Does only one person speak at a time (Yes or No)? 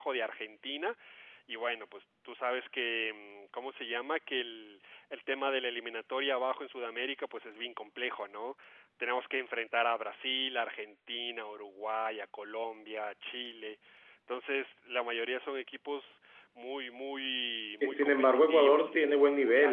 No